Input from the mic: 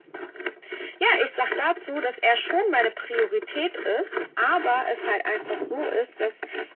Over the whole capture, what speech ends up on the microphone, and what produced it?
echo only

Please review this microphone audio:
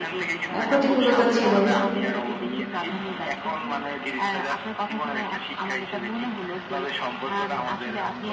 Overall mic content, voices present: both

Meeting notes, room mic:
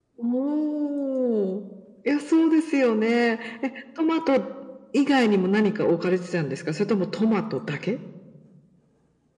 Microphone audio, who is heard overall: echo only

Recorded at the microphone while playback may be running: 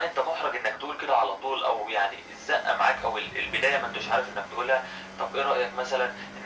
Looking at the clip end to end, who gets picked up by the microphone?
echo only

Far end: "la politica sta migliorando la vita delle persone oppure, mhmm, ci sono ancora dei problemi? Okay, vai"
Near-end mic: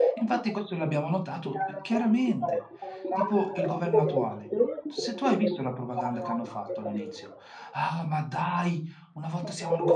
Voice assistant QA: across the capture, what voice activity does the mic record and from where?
both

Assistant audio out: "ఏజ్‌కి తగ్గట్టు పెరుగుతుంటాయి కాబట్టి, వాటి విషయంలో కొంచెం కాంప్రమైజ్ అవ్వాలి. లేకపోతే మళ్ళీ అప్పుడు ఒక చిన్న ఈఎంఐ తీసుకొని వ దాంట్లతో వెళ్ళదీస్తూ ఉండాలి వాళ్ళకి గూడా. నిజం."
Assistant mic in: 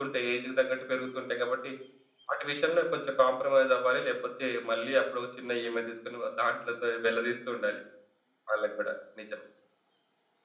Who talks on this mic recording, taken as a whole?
echo only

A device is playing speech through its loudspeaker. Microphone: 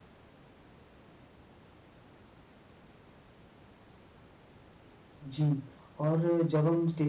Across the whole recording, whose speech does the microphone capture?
user only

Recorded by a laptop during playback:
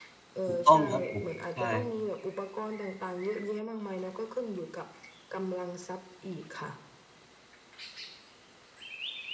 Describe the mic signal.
both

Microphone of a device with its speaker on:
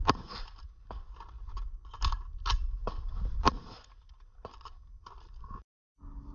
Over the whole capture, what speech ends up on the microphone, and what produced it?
neither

